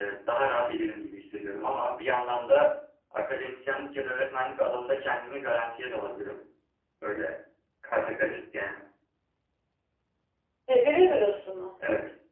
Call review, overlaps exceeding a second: none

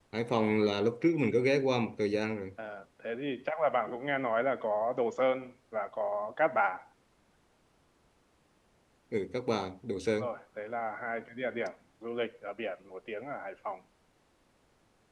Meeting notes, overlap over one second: none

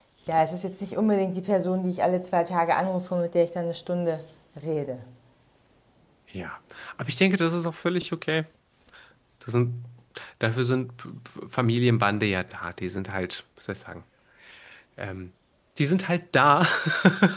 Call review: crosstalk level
none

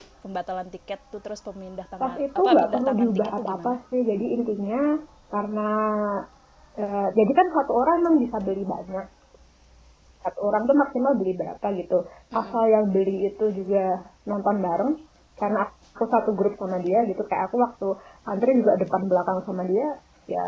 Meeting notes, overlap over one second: present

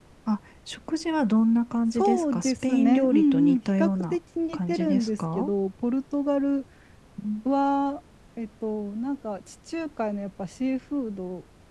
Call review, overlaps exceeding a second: present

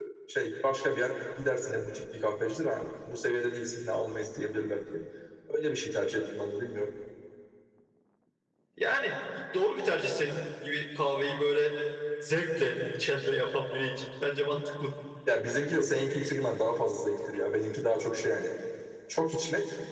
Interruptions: none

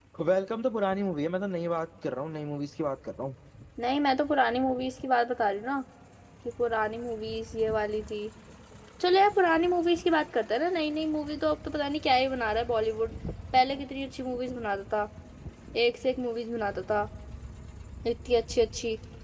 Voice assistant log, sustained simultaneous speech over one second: none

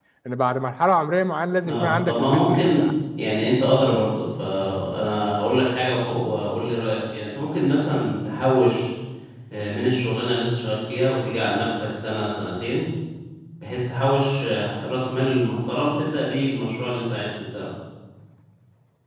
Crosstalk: present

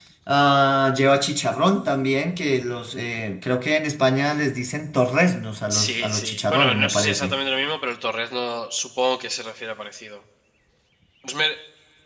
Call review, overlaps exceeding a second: present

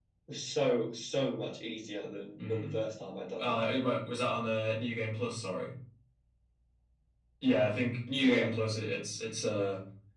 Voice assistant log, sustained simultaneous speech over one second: none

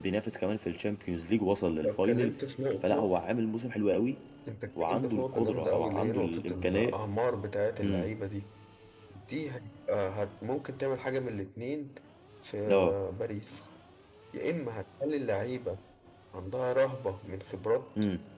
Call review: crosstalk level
present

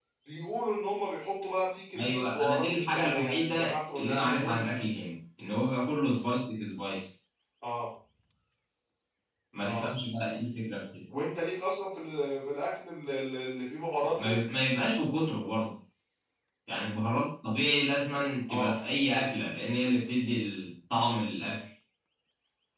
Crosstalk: present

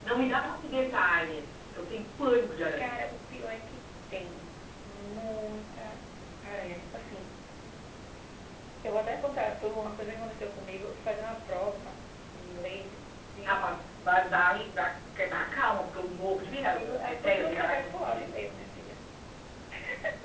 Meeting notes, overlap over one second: present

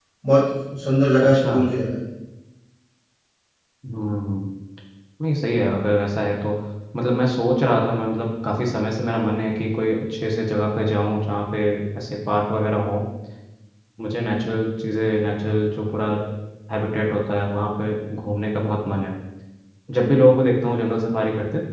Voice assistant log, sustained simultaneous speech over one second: none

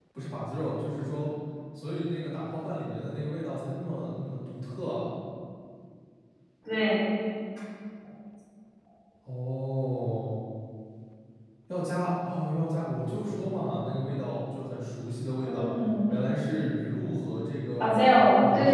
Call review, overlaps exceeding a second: none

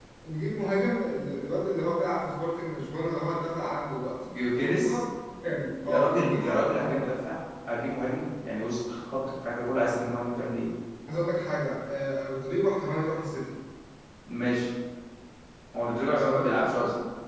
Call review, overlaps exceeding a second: present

